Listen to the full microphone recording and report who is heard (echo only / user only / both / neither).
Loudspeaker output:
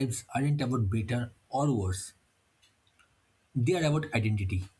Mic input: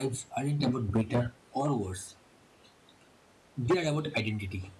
echo only